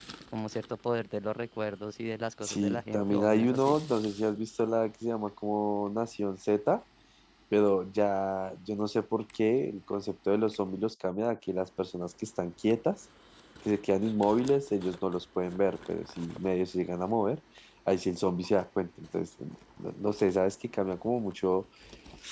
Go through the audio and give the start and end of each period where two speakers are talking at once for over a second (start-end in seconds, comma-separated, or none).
2.4-3.8